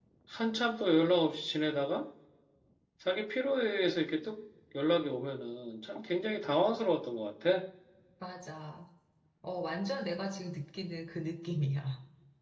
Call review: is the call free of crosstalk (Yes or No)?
Yes